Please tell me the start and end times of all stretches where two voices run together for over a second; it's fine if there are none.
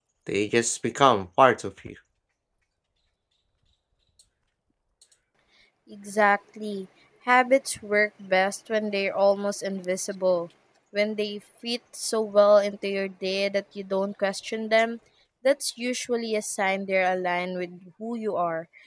none

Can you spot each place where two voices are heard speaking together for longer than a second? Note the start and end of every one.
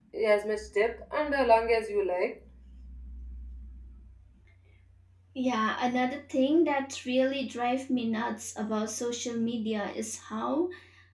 none

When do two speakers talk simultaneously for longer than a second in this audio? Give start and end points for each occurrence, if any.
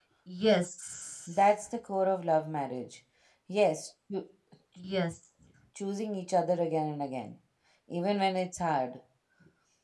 none

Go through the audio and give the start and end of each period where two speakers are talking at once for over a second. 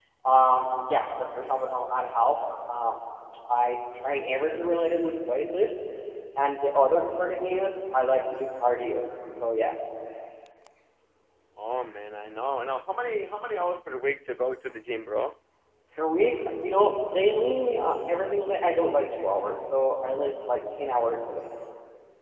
none

